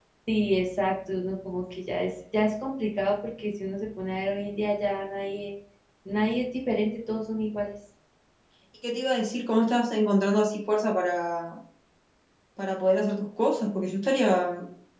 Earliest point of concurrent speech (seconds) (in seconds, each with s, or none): none